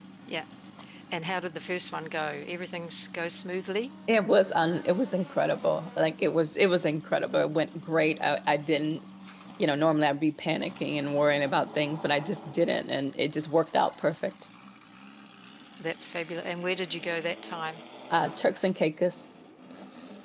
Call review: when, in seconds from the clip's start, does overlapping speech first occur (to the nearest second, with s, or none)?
none